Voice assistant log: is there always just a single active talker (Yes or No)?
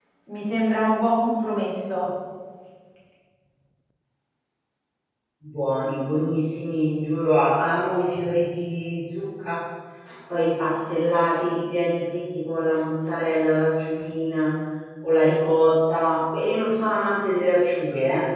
Yes